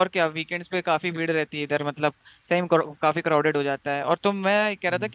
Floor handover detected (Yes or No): No